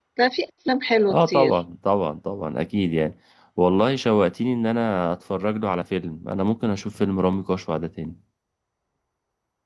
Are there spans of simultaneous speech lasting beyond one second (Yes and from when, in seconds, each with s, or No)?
No